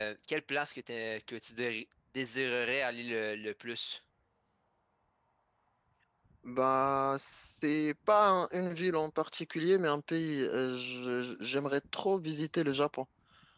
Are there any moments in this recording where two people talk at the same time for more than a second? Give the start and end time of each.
none

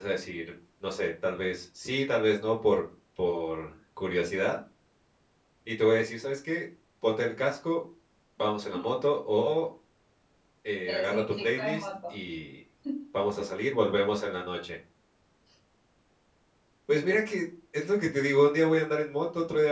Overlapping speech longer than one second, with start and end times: 10.9-12.1

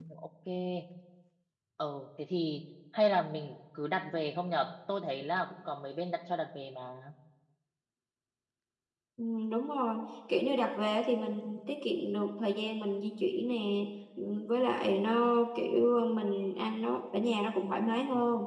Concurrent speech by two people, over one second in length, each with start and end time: none

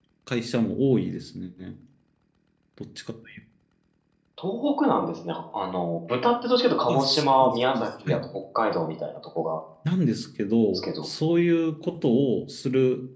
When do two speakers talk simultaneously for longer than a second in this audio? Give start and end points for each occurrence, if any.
6.9-8.2

